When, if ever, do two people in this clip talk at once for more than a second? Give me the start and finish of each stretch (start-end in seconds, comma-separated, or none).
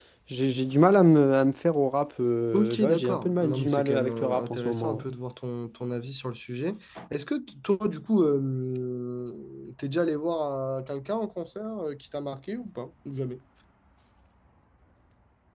2.5-5.0